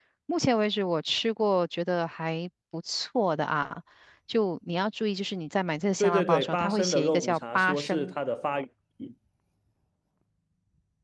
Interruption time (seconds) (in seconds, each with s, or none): 6.0 s